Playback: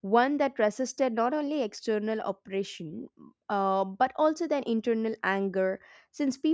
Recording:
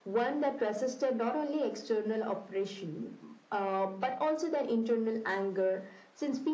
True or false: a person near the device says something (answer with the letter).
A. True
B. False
B